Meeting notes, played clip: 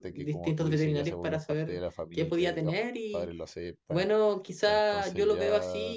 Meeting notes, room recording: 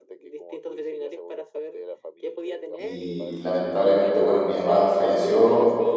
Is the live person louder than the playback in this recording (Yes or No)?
Yes